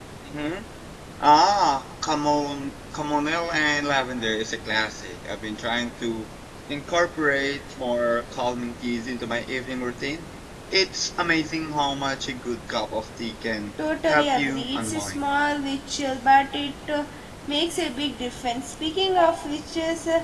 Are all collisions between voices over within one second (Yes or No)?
No